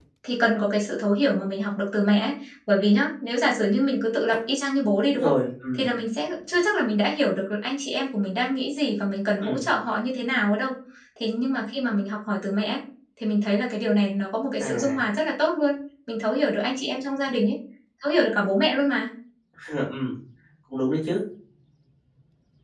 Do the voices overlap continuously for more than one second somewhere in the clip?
No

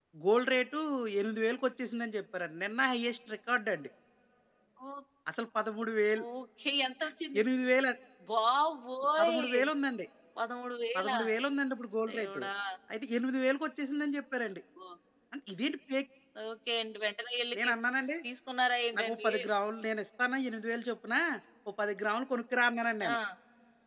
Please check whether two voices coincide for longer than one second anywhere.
No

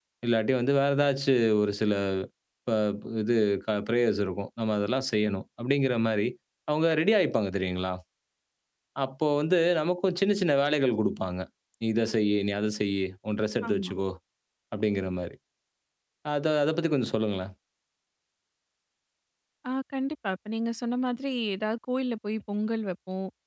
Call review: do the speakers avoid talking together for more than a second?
Yes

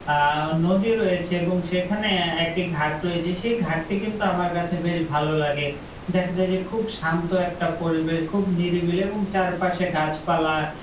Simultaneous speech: No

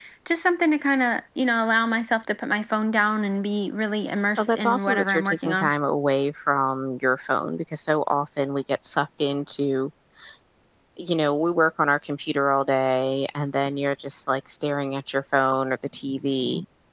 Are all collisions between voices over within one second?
No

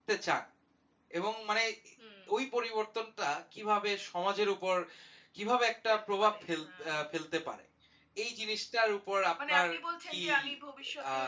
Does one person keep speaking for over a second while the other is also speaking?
No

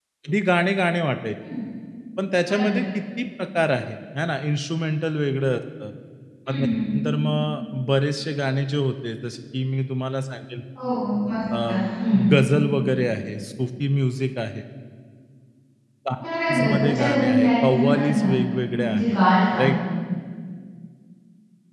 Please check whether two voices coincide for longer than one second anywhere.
Yes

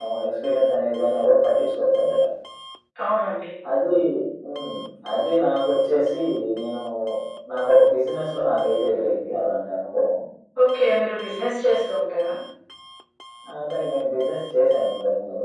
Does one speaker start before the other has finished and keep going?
No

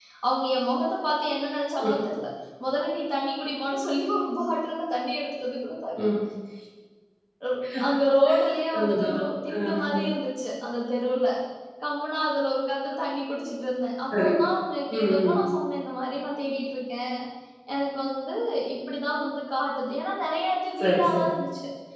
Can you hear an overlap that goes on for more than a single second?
No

